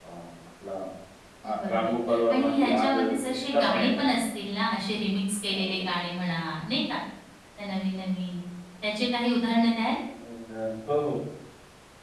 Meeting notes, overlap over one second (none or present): present